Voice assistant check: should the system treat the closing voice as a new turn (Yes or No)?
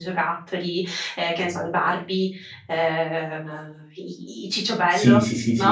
Yes